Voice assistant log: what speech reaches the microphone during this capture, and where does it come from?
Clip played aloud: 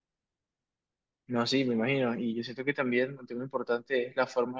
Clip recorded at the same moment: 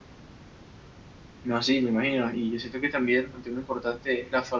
echo only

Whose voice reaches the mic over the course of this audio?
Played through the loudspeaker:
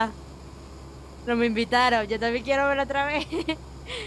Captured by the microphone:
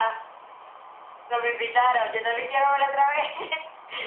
echo only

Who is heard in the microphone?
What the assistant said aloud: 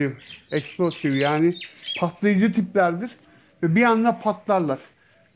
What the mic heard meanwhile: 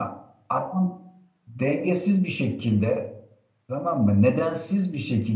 user only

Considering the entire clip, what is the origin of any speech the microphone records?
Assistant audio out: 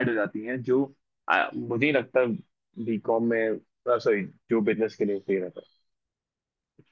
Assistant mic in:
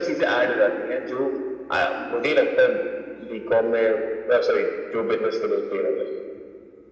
echo only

